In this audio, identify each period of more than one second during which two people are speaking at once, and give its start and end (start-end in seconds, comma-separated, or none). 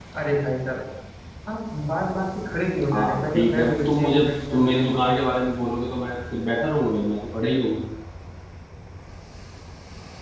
2.9-5.1